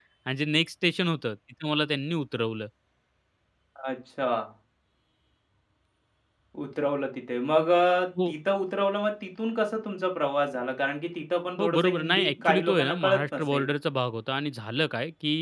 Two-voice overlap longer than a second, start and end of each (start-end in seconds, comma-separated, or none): 11.6-13.7